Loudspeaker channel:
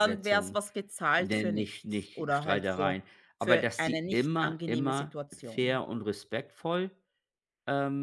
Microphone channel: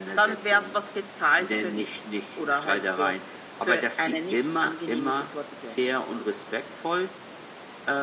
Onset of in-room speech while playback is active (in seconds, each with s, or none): none